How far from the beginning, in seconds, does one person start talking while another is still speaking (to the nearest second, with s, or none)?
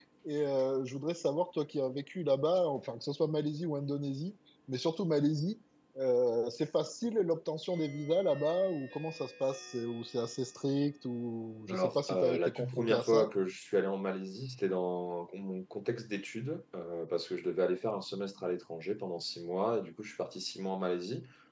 12 s